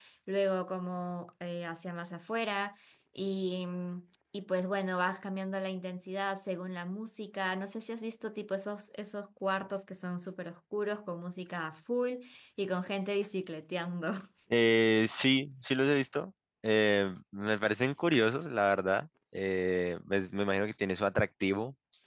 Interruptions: none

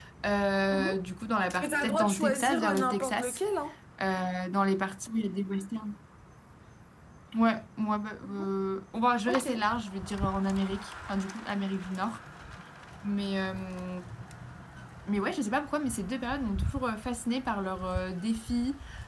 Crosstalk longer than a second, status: present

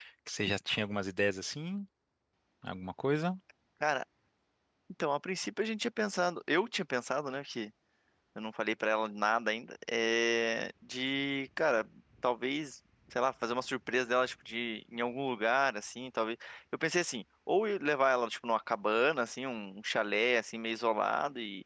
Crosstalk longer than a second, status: none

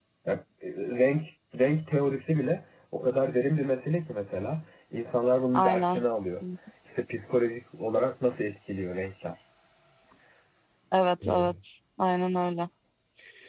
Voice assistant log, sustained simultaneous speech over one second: none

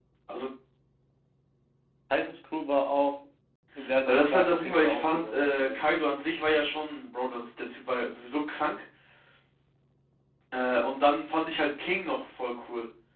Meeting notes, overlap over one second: present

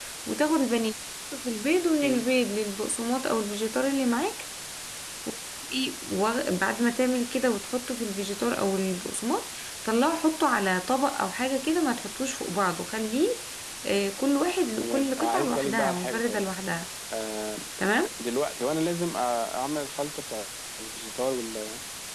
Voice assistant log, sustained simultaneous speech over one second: present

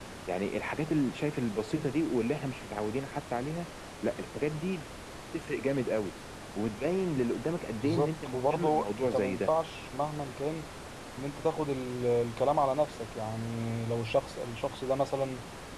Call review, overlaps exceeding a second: present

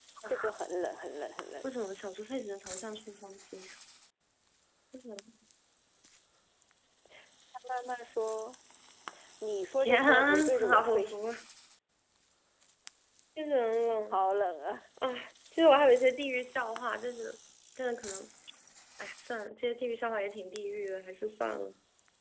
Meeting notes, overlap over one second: present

